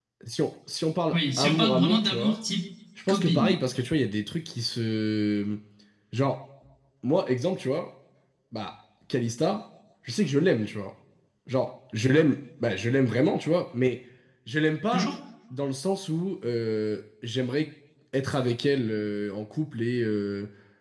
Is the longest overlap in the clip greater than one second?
Yes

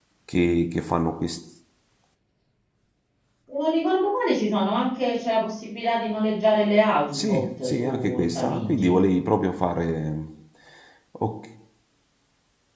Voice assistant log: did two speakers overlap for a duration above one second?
Yes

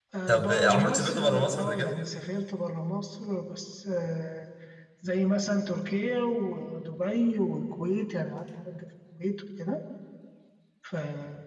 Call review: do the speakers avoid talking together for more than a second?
No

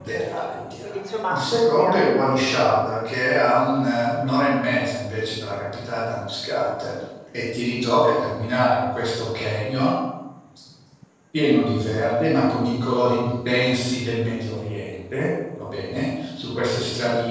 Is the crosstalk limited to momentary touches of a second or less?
No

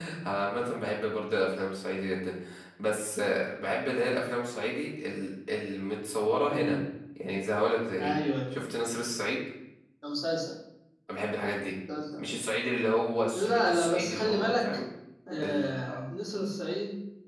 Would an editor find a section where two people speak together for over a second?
Yes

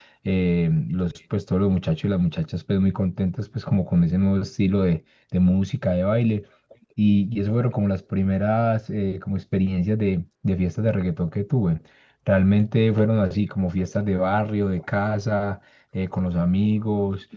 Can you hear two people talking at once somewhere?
No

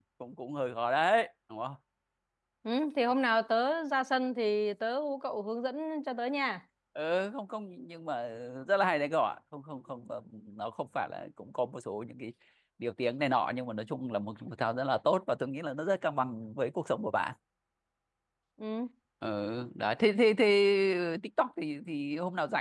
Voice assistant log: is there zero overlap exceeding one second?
Yes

